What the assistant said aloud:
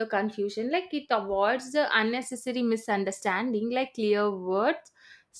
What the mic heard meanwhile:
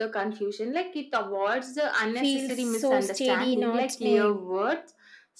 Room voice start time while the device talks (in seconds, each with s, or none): 2.1 s